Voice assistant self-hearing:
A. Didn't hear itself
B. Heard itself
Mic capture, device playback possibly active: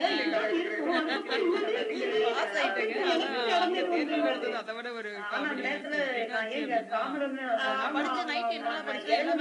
B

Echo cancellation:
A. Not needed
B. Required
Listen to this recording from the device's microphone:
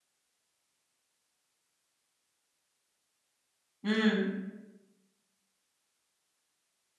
A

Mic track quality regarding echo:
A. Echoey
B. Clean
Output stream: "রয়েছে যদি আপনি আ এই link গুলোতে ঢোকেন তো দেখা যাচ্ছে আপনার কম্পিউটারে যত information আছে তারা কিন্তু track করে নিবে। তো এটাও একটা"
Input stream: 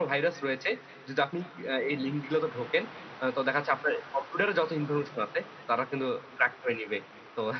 A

